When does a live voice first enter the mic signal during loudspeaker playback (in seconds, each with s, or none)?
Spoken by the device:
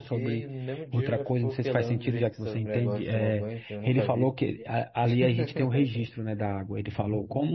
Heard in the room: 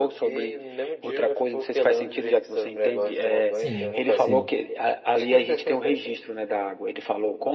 3.5 s